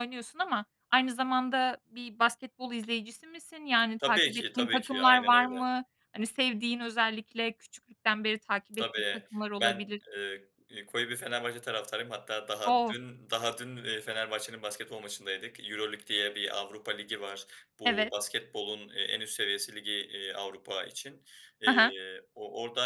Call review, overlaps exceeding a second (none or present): present